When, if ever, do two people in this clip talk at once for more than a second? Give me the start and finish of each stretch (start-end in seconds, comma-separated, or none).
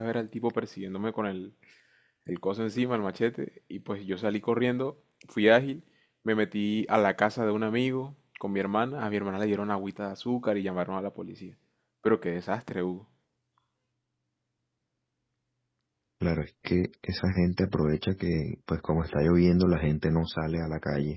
none